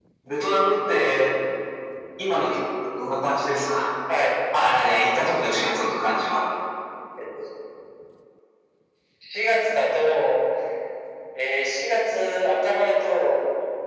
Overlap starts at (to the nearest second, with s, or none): none